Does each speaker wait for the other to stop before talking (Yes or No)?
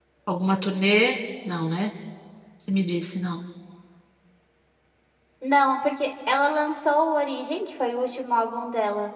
Yes